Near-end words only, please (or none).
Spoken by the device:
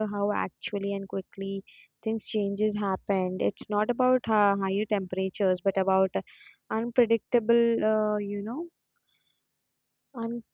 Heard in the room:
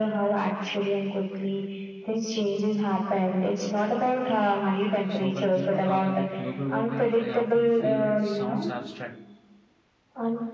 So when people talk about global warming, I often feel it sounds abstract